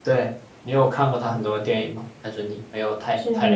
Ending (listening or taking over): taking over